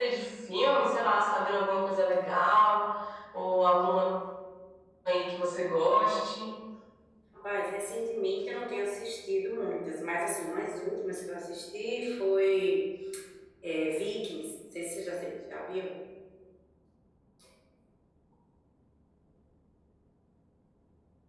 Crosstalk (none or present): none